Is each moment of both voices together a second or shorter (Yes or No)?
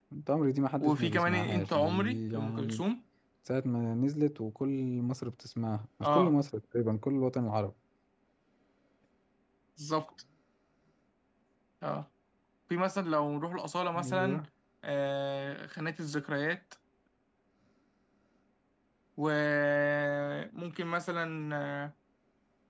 No